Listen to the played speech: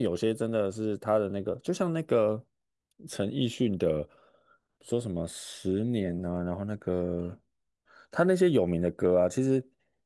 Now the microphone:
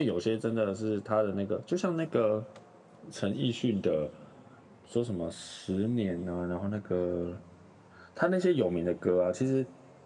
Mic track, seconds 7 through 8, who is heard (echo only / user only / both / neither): echo only